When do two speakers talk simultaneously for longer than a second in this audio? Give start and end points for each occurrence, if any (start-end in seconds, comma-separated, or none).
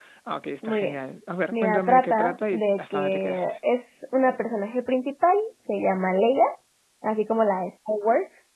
1.5-3.5